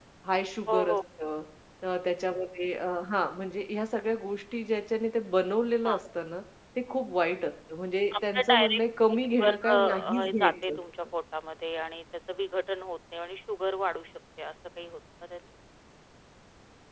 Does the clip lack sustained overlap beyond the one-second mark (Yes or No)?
No